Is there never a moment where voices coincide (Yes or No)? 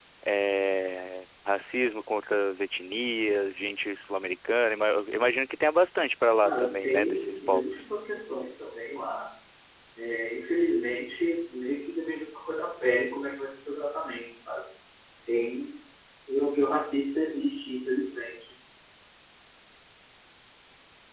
No